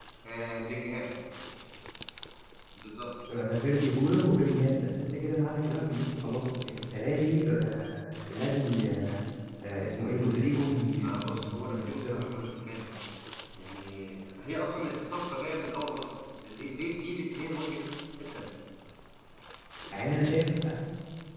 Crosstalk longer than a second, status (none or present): present